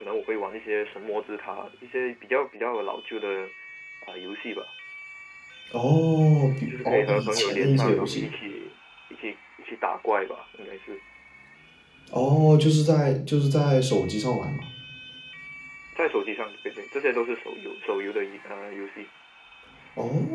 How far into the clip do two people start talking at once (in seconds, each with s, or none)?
6.7 s